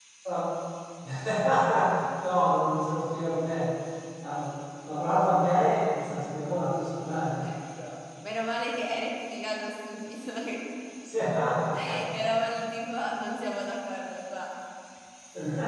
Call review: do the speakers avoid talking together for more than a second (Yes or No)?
Yes